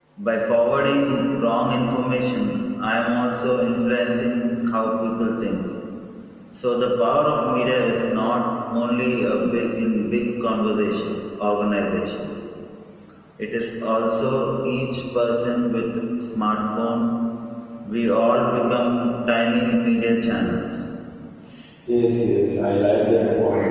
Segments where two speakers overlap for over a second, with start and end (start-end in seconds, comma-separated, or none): none